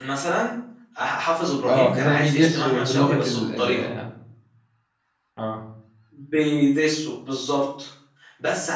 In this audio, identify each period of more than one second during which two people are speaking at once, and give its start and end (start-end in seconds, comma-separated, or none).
1.7-3.9